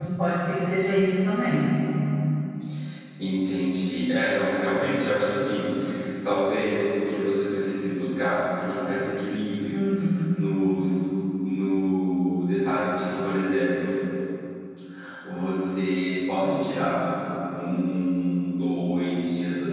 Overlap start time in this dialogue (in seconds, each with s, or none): none